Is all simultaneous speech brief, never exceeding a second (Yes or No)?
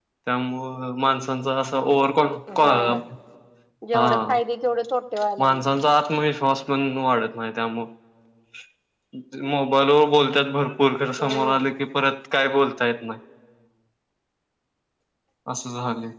Yes